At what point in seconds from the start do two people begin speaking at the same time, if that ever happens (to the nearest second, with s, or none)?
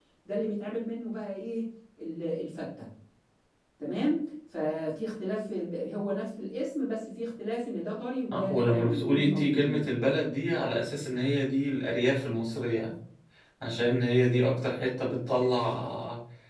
8 s